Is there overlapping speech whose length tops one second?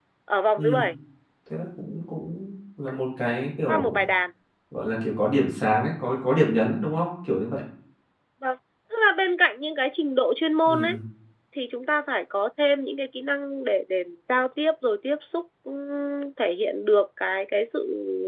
No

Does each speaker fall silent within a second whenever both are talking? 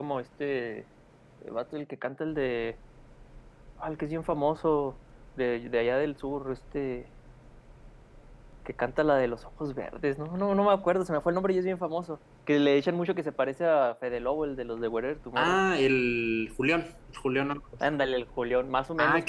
Yes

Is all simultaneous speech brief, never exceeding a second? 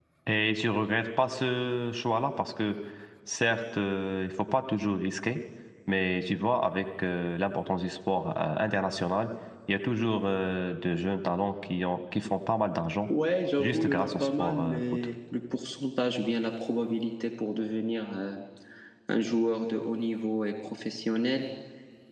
No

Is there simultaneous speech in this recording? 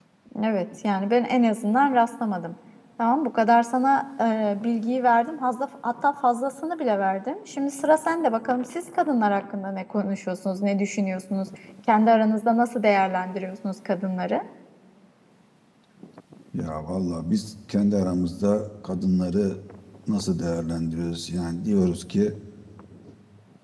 No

